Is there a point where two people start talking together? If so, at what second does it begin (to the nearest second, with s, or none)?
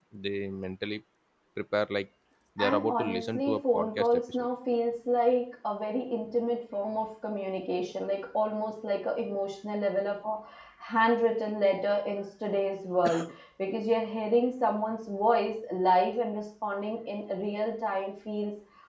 3 s